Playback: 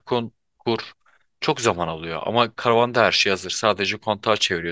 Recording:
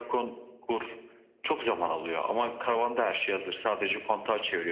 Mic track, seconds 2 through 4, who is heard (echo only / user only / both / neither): echo only